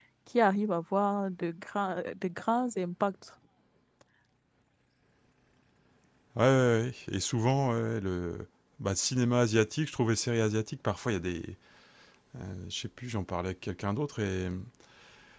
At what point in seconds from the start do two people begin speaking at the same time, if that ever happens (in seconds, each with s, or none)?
none